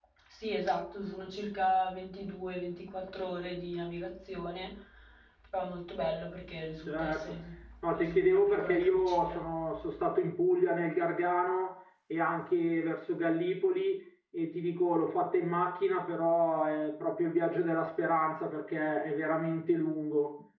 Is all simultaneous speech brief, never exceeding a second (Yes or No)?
No